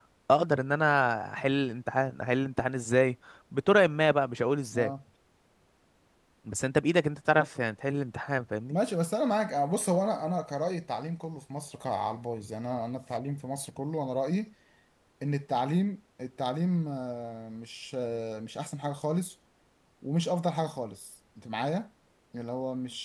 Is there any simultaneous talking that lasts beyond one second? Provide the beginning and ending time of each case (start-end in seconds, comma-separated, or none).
none